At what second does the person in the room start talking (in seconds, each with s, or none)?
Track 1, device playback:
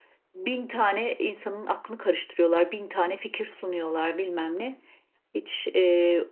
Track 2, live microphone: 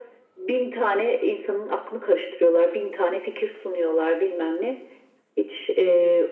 none